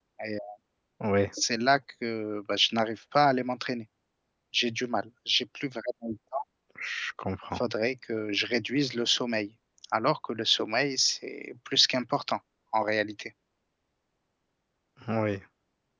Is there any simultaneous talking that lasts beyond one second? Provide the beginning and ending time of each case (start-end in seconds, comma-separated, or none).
none